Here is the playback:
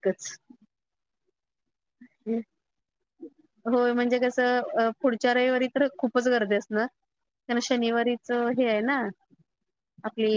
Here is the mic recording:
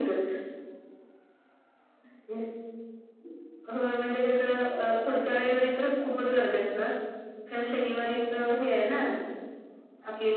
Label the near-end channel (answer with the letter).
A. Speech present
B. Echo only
B